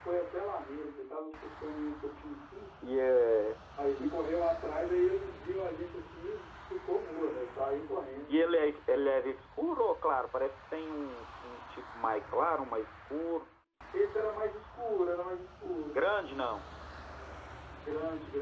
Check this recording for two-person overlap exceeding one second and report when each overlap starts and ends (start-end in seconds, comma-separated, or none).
none